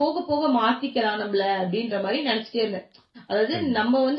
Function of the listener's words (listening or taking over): listening